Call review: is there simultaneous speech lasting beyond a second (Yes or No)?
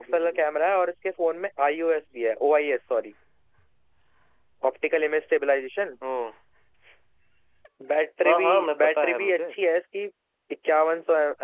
Yes